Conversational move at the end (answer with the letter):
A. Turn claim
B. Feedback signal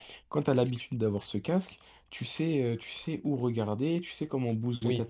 A